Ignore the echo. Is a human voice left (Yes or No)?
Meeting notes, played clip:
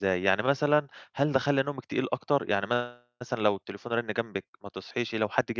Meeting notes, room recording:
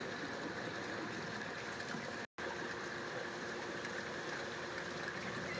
No